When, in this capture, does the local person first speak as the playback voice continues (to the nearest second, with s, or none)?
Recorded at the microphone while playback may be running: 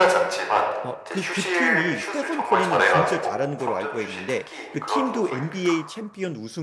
1 s